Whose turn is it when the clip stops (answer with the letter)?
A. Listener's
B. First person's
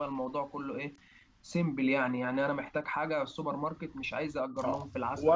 A